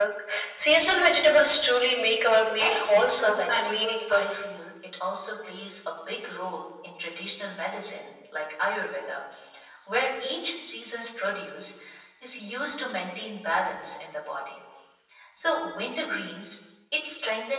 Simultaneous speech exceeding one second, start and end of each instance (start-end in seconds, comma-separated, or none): 2.6-4.3